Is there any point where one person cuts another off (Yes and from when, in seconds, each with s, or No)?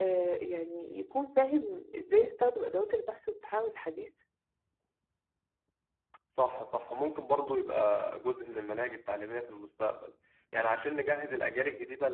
No